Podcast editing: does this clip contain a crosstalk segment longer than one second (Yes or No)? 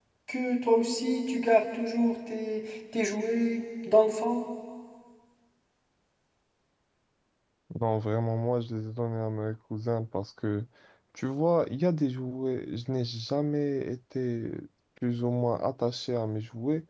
No